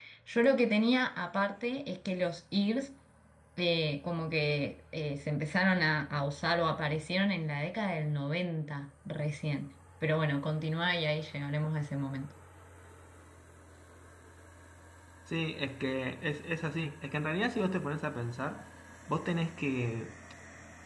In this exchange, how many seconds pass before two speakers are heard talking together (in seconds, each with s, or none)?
none